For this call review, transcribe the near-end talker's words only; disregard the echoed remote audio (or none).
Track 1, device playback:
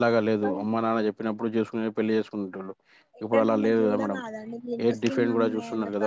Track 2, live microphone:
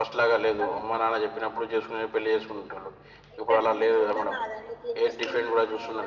none